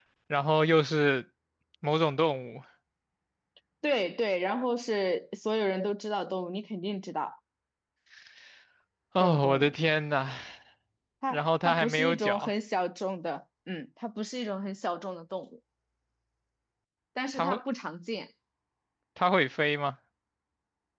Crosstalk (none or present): present